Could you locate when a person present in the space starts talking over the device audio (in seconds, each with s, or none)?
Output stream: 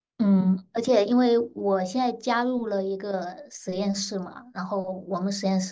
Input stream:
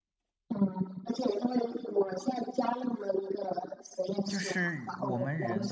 4.3 s